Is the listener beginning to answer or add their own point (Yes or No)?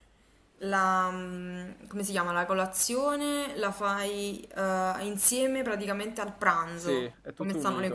Yes